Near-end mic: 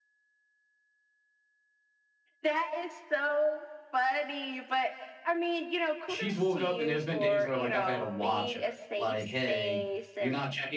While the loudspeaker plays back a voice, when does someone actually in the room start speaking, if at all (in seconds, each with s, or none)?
6.1 s